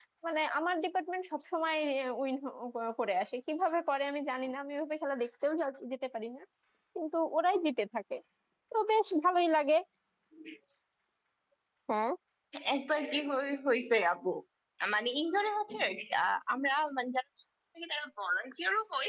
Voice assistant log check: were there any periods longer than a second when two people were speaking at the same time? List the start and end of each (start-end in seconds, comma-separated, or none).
none